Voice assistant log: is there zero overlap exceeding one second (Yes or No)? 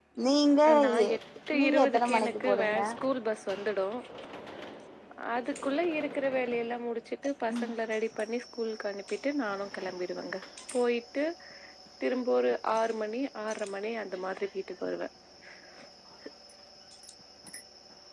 No